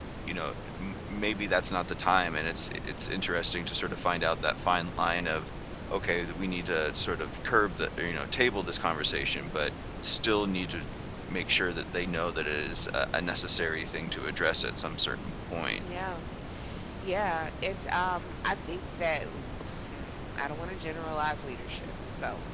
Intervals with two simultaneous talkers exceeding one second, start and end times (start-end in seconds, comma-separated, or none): none